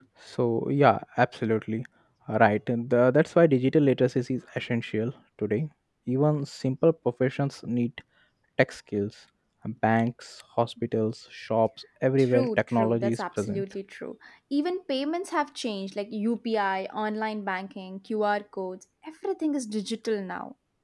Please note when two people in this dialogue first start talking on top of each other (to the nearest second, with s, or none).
12 s